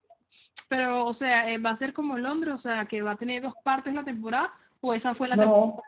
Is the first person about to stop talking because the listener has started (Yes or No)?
Yes